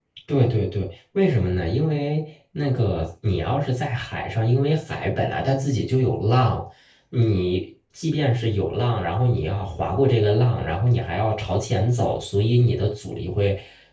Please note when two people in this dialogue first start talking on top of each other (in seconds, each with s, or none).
none